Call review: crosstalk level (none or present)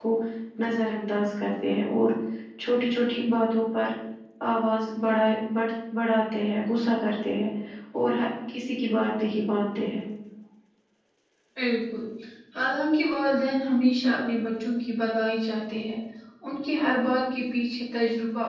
none